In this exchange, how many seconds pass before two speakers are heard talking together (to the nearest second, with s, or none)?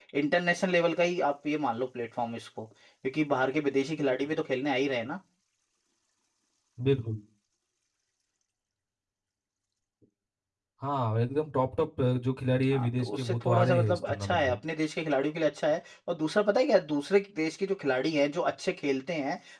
13 s